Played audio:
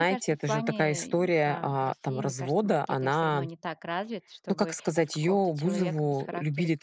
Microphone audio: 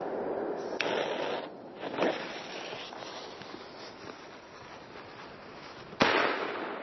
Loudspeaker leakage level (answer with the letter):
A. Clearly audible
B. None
B